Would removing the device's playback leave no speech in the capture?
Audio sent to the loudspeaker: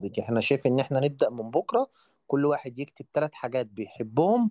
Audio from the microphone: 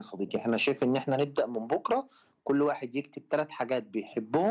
Yes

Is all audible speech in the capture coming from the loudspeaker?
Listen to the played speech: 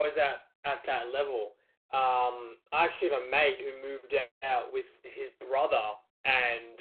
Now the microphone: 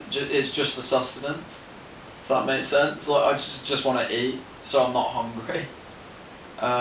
No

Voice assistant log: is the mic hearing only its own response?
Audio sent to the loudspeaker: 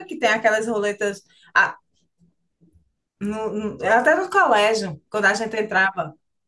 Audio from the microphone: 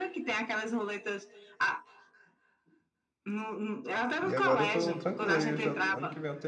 No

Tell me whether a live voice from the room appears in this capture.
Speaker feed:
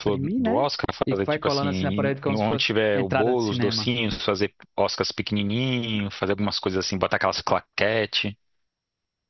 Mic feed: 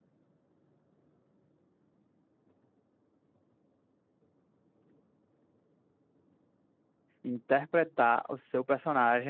Yes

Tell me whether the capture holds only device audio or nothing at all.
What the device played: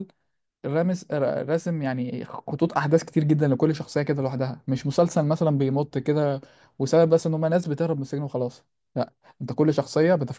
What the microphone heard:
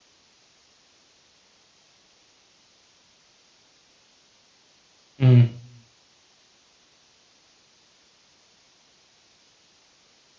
No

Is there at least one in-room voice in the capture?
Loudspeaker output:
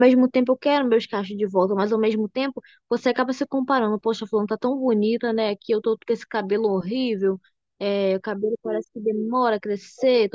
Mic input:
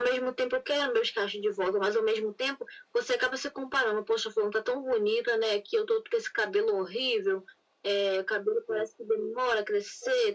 No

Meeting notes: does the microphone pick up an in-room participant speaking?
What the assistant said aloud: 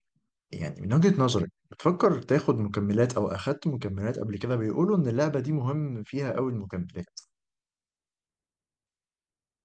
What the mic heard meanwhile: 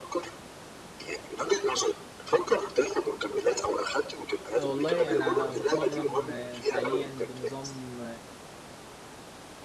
Yes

